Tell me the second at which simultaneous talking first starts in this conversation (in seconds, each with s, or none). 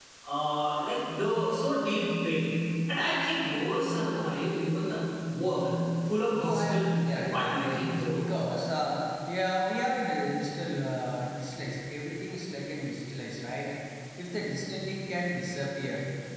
6.3 s